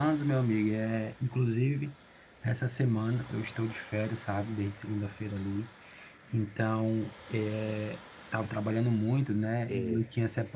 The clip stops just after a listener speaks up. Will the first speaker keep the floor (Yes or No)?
Yes